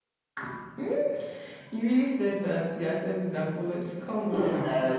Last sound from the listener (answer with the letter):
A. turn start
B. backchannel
A